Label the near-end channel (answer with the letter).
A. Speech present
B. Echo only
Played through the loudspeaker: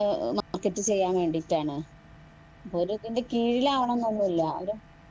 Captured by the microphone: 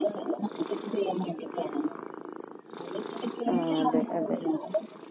A